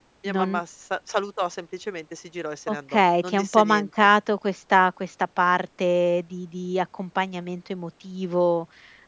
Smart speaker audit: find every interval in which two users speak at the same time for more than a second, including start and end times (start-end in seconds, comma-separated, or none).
2.7-3.9